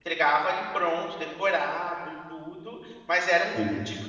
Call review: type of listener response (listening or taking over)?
listening